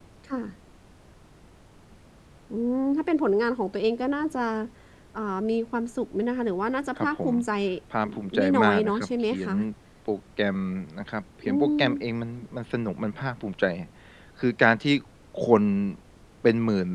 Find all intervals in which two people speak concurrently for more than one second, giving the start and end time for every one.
8.0-9.5

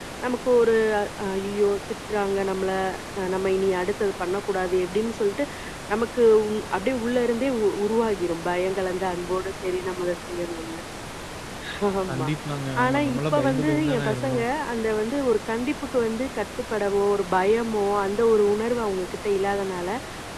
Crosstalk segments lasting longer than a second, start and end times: 12.8-14.5

